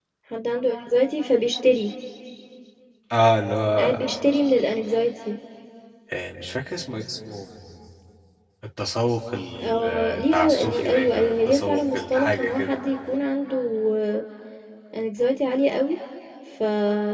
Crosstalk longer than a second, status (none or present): present